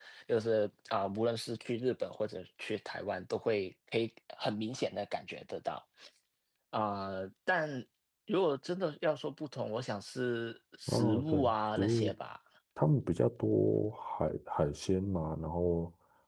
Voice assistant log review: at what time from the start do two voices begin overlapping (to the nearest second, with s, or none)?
11 s